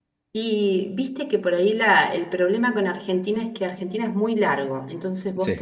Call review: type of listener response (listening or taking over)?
listening